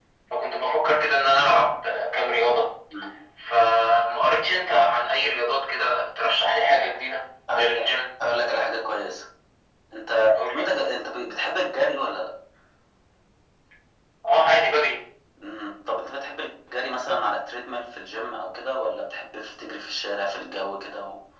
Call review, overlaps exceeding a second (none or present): none